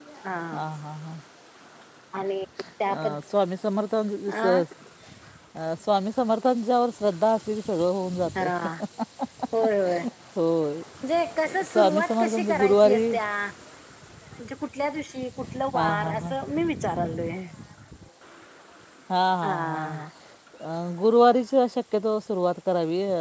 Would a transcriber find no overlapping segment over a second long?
No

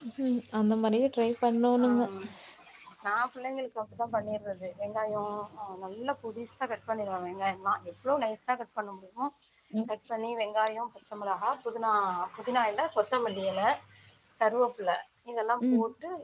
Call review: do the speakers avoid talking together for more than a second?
Yes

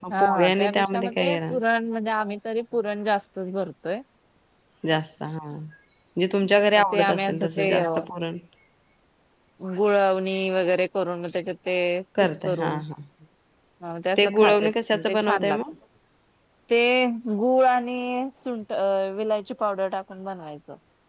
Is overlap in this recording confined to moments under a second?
No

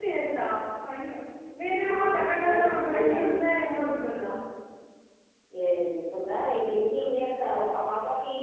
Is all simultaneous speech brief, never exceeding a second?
No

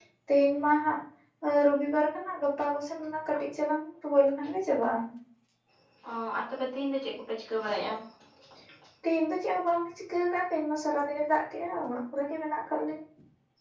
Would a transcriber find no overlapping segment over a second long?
Yes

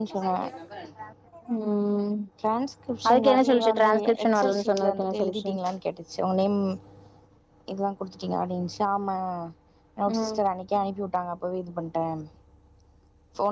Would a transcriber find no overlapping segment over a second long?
No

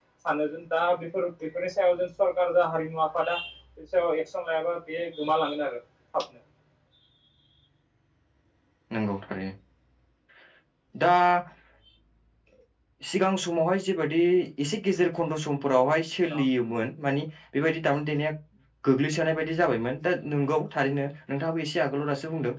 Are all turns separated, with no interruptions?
Yes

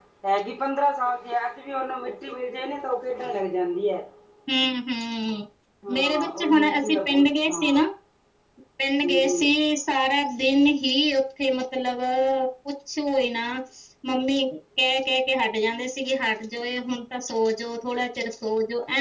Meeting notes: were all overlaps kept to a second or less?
No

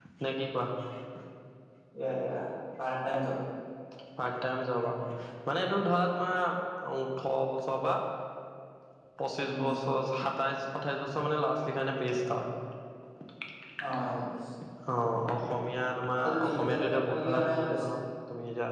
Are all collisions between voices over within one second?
No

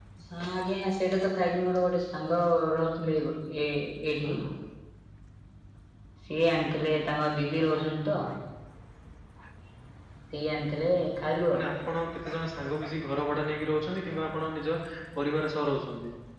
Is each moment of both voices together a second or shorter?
Yes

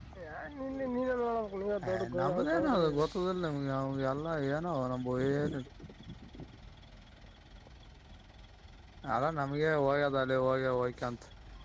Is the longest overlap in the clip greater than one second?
Yes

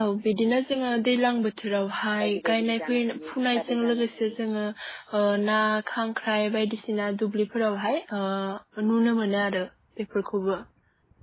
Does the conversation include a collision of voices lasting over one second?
Yes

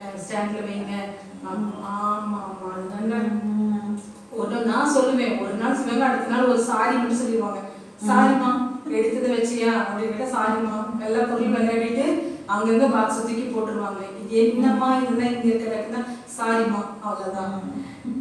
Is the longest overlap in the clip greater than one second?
No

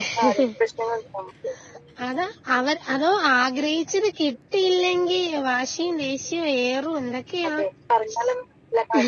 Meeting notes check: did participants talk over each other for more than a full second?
No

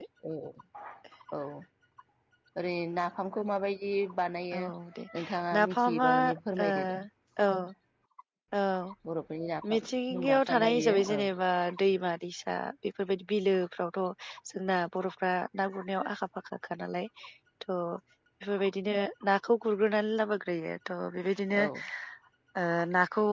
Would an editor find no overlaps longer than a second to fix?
No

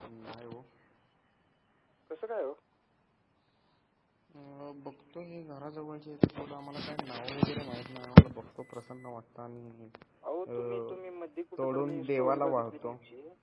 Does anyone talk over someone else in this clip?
Yes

